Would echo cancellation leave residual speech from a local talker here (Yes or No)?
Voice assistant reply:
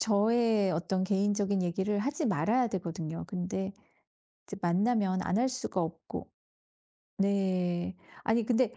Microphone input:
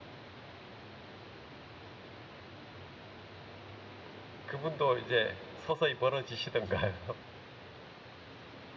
Yes